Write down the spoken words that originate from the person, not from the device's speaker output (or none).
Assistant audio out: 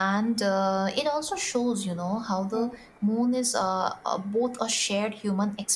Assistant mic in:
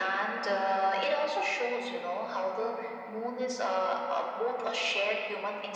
none